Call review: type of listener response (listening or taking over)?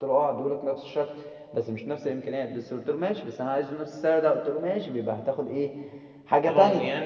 taking over